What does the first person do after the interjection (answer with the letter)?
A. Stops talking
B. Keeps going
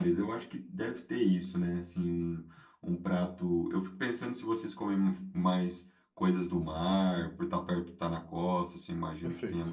B